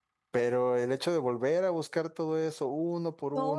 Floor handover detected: Yes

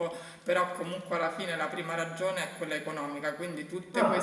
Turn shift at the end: No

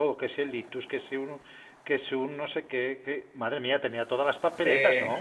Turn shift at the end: Yes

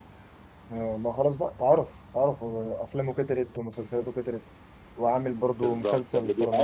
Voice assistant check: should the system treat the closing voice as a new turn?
Yes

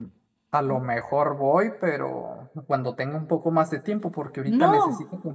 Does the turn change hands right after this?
No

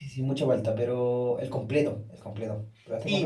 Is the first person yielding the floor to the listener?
Yes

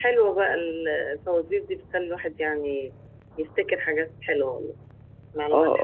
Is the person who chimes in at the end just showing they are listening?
No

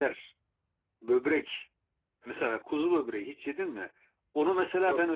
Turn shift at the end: No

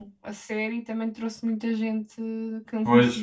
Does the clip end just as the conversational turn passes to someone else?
Yes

